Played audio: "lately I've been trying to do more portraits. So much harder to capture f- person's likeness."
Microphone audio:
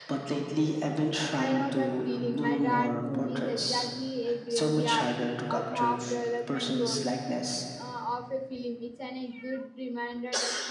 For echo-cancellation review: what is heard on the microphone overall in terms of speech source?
both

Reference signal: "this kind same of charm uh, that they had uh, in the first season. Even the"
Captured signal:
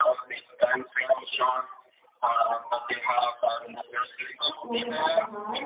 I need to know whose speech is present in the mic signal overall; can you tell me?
both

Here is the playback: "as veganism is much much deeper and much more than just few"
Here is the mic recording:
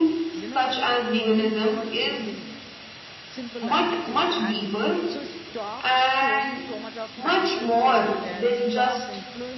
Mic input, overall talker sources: both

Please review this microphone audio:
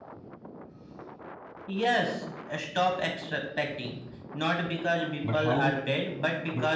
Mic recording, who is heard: both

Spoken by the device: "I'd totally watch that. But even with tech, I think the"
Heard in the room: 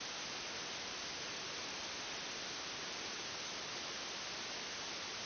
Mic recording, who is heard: neither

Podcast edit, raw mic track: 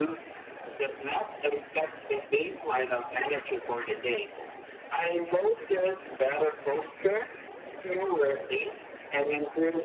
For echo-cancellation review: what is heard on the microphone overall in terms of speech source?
echo only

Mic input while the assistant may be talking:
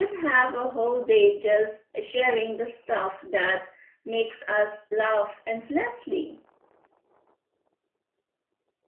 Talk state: user only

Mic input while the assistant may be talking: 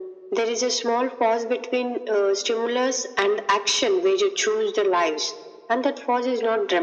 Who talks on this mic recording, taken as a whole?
echo only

